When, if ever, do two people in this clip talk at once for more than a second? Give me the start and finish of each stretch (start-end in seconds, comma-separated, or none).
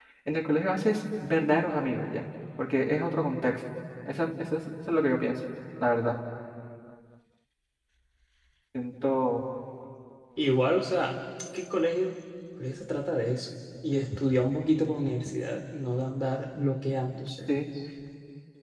none